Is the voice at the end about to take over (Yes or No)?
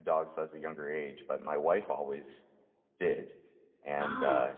No